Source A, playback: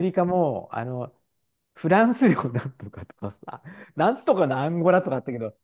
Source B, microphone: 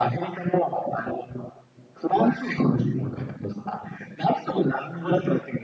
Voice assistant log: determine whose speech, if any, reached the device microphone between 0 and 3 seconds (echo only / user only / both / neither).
echo only